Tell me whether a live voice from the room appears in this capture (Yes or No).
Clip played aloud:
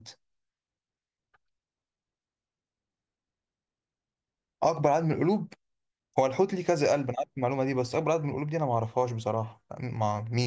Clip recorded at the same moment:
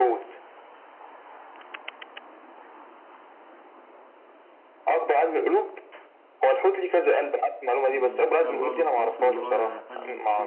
Yes